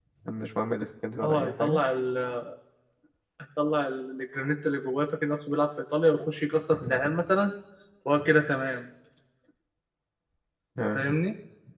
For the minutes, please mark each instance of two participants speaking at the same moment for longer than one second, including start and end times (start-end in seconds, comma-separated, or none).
none